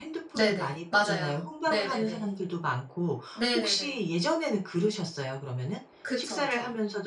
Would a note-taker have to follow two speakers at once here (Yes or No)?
Yes